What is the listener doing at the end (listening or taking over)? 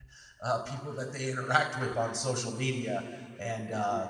listening